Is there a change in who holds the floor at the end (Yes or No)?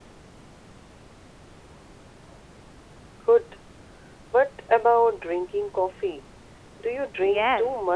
Yes